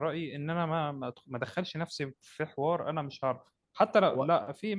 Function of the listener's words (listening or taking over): listening